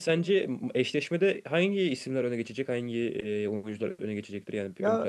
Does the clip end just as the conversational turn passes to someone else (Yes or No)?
Yes